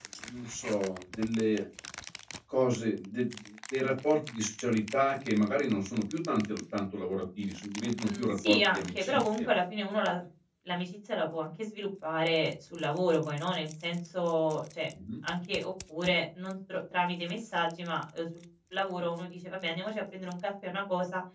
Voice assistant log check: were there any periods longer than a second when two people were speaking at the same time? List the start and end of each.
8.0-9.5

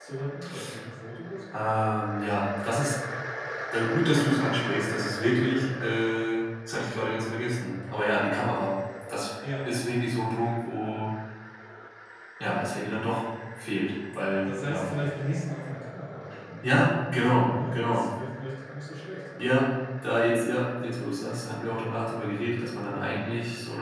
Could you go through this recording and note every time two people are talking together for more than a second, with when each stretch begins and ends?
16.6-18.1

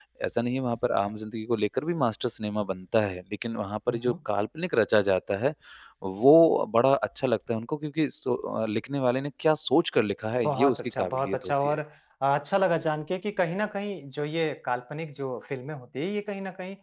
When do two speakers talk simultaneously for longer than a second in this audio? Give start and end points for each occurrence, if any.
10.4-11.8

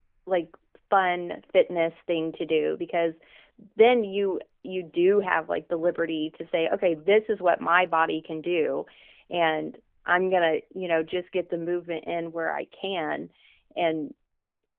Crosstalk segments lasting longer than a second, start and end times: none

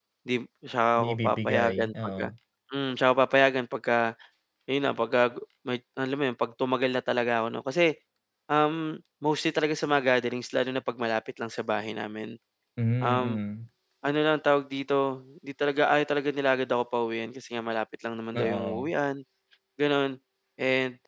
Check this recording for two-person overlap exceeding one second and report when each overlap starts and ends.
1.0-2.3

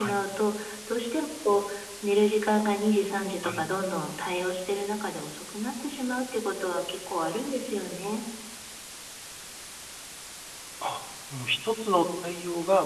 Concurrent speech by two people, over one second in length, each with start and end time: none

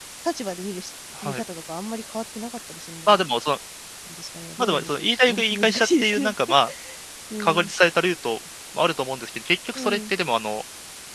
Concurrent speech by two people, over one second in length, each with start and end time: 4.6-6.3

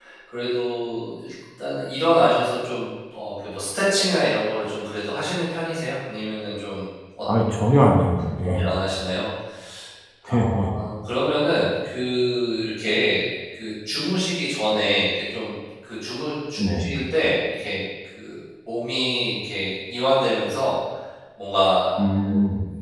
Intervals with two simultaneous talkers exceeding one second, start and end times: none

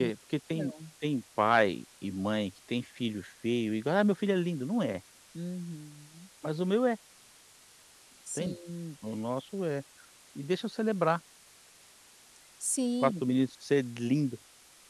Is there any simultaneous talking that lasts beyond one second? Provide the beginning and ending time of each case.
none

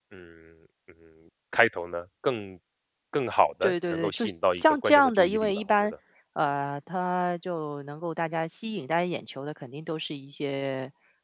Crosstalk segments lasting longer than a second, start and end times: 3.6-5.9

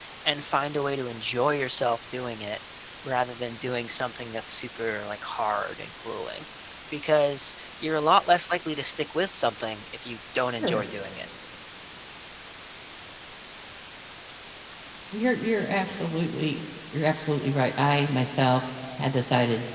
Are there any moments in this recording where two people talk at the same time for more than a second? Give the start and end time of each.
none

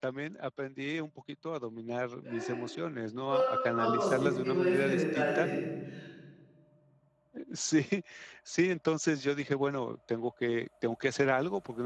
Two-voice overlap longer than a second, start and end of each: 3.8-5.5

